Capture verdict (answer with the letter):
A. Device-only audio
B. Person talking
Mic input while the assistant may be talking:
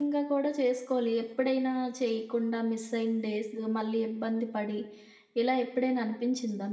B